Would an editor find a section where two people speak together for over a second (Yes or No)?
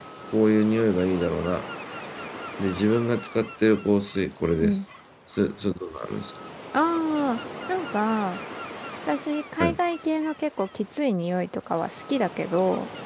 No